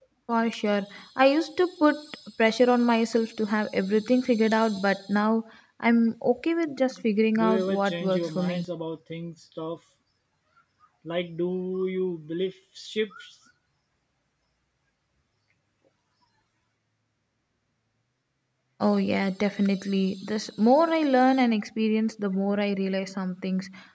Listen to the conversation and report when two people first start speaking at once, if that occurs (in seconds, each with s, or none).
7.4 s